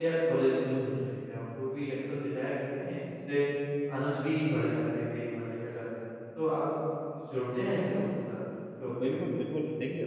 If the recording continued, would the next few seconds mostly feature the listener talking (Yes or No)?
Yes